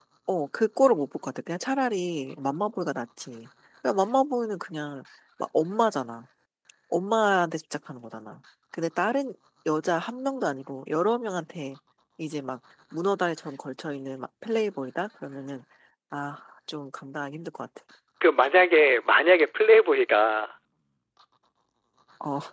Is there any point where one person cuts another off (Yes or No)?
No